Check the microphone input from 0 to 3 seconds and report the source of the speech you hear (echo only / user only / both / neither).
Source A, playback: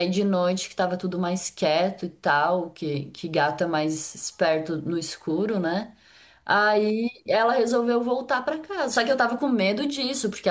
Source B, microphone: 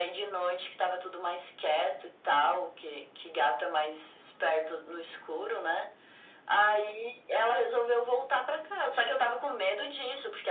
echo only